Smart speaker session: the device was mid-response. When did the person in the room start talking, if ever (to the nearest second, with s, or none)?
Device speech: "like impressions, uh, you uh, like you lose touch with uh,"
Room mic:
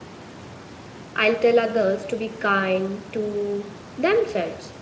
1 s